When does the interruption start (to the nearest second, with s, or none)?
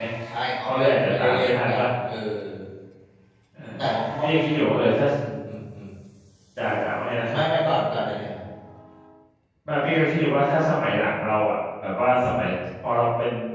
1 s